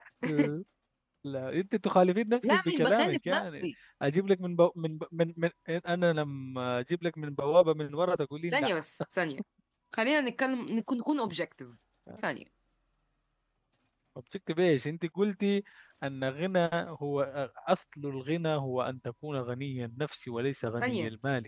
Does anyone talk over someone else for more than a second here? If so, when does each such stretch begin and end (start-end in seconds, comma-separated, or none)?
2.4-3.7